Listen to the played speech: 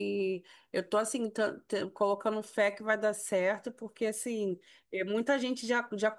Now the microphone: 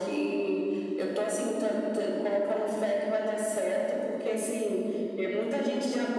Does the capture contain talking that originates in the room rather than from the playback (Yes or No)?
Yes